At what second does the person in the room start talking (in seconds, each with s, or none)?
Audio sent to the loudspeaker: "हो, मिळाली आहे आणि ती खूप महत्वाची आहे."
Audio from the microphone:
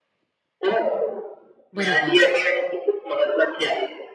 1.7 s